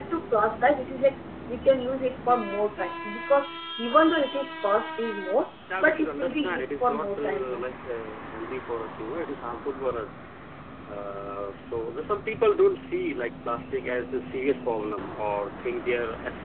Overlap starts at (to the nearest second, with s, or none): 6 s